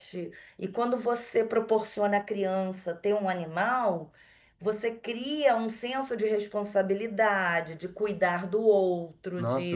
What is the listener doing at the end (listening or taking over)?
taking over